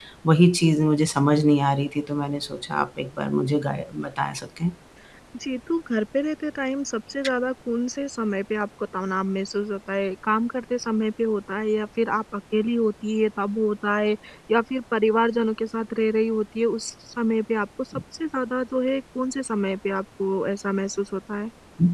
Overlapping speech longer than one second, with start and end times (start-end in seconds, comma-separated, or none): none